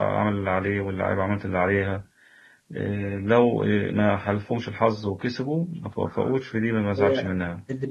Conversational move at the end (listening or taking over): taking over